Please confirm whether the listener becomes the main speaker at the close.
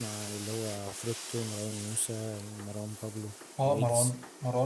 Yes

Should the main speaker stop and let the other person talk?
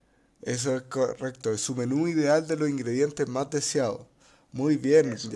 No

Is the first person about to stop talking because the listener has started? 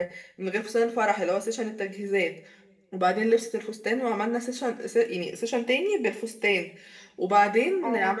No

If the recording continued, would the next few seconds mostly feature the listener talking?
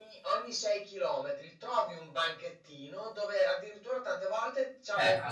No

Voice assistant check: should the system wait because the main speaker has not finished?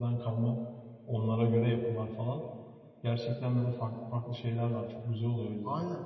No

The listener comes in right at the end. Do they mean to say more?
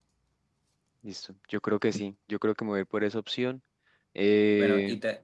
Yes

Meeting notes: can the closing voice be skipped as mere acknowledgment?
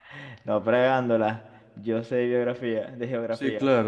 No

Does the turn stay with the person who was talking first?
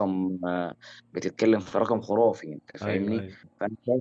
Yes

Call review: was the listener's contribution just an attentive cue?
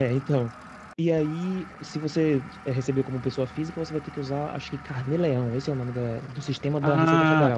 No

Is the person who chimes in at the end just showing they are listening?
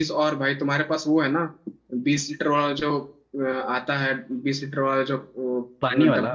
Yes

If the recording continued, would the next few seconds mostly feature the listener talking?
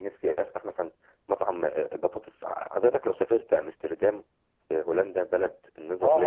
Yes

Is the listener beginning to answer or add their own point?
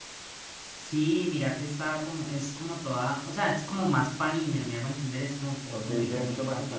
Yes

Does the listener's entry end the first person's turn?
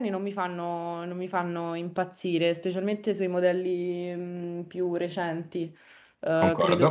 No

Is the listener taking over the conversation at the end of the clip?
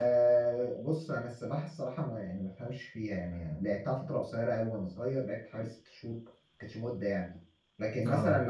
No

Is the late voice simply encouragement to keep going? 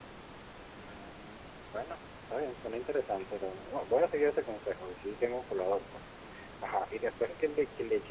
Yes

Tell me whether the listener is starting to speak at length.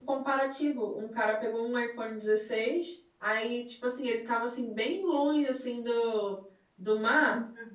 No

